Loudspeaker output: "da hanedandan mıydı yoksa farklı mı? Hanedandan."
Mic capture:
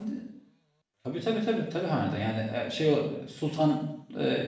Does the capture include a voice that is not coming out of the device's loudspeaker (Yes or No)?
Yes